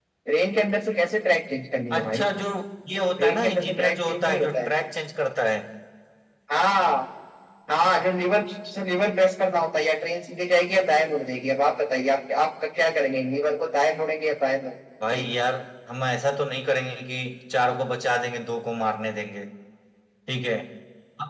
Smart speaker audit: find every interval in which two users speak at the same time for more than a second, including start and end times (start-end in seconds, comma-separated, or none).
3.2-4.7